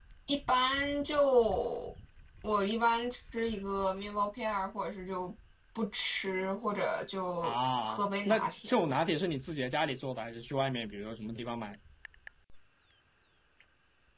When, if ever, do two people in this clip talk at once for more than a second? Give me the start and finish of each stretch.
7.4-8.8

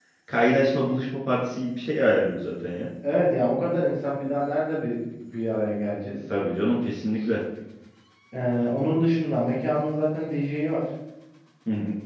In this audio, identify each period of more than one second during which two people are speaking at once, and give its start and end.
none

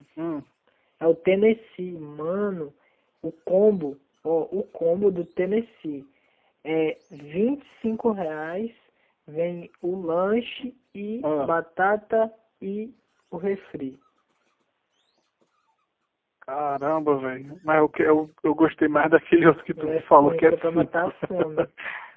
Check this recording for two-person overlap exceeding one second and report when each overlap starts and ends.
19.8-21.1

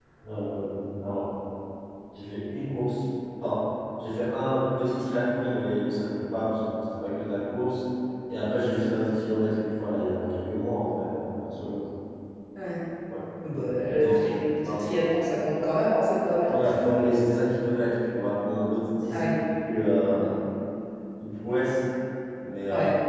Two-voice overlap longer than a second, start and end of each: 13.5-14.8

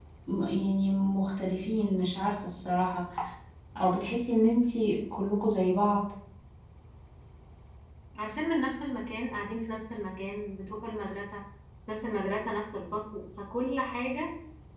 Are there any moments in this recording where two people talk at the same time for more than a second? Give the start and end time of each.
none

